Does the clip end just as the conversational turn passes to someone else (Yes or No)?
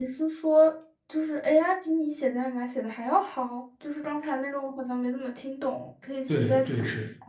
Yes